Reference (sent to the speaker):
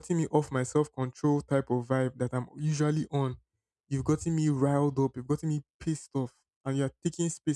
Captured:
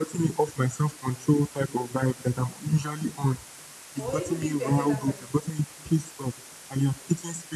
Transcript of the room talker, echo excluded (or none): Or even do it to any other person.